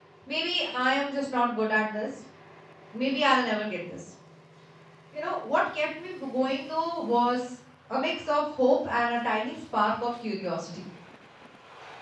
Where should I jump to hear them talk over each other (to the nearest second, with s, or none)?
none